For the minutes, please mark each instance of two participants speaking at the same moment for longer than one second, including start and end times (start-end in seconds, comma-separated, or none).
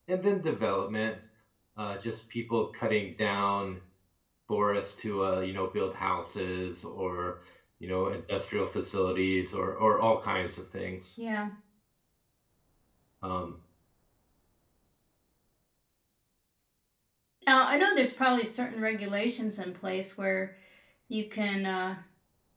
none